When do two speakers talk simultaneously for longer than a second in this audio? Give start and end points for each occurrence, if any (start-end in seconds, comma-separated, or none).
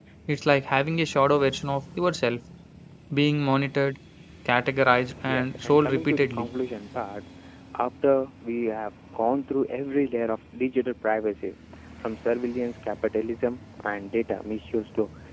5.3-6.5